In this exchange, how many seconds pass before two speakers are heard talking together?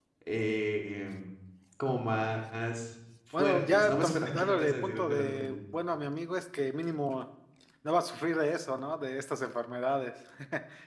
3.4 s

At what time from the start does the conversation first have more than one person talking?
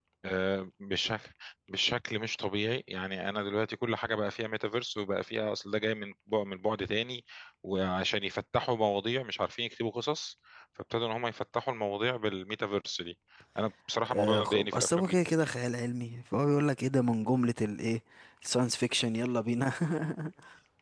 14.1 s

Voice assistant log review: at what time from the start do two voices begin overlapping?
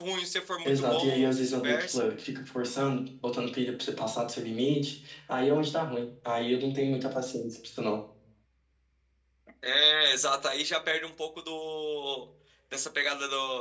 0.6 s

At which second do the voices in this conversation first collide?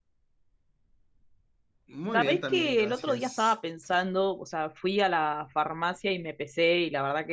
2.1 s

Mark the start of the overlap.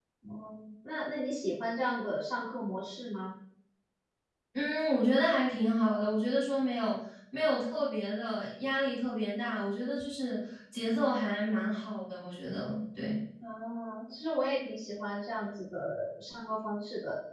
none

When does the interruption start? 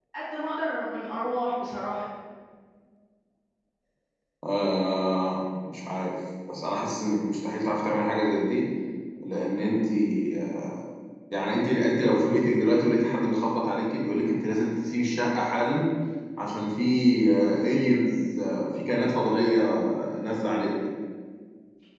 none

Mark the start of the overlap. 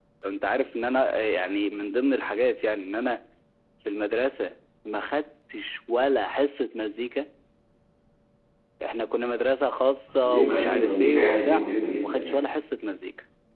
10.2 s

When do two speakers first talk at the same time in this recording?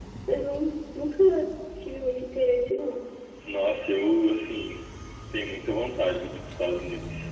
none

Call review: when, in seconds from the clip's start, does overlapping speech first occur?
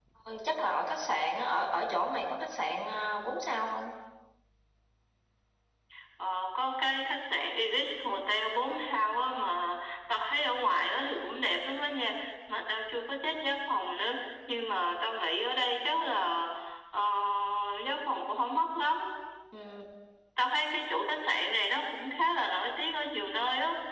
none

